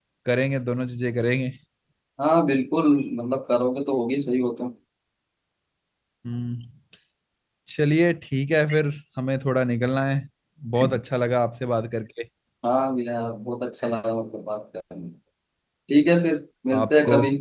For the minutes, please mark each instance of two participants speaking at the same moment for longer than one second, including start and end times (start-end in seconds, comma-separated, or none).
none